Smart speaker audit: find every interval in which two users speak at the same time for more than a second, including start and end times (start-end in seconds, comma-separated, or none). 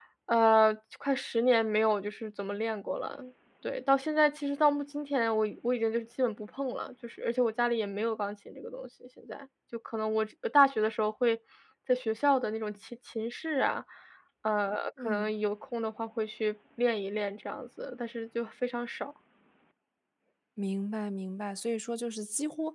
none